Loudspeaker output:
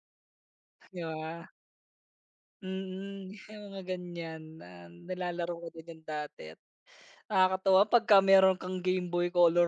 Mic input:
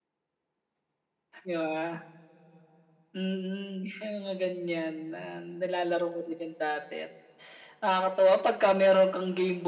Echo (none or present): present